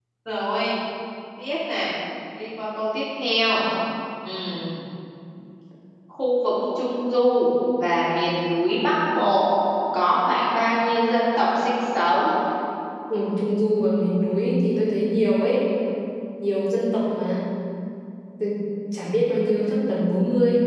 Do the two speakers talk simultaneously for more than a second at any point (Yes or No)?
No